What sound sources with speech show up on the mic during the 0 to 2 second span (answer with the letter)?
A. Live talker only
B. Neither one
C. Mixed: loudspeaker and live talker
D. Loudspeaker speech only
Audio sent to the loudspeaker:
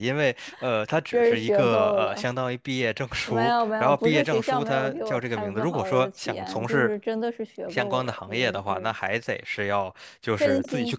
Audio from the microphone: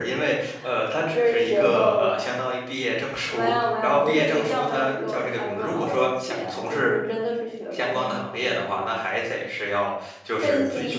D